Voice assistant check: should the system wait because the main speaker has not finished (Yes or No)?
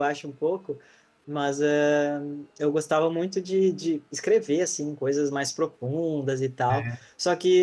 Yes